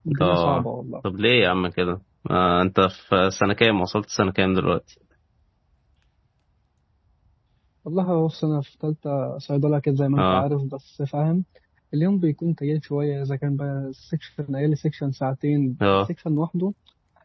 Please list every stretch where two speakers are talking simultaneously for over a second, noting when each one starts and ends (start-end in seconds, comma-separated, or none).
none